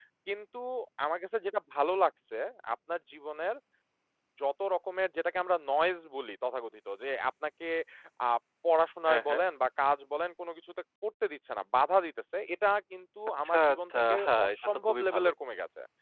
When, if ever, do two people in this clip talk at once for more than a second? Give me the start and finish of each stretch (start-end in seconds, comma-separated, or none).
13.4-15.3